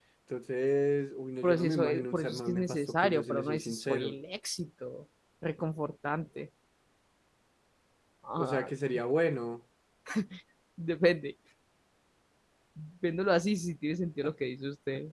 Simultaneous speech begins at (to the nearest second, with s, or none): 1 s